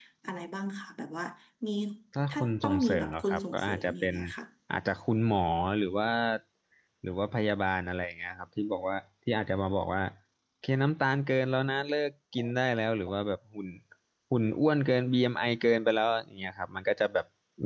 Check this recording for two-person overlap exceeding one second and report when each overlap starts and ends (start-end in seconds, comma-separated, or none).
2.3-4.1